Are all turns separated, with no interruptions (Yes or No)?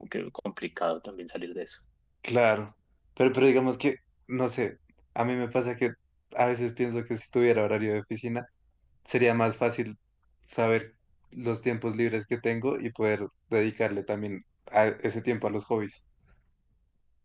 Yes